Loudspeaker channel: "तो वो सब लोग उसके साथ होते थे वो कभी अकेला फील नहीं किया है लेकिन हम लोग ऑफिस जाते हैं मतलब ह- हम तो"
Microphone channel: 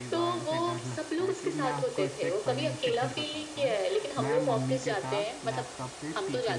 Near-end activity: present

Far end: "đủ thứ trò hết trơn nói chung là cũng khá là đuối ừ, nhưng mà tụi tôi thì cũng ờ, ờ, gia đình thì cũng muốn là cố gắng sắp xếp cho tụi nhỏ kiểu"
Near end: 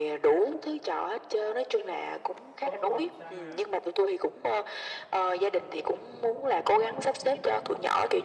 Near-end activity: present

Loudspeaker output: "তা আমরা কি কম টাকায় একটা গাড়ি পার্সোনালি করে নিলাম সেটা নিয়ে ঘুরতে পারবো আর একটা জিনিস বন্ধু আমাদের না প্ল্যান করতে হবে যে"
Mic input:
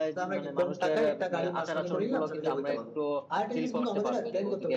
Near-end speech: present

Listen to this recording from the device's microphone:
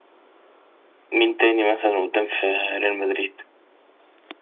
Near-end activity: none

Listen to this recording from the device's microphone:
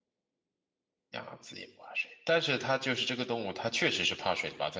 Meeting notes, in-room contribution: present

